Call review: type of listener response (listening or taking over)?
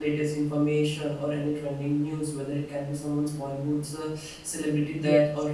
listening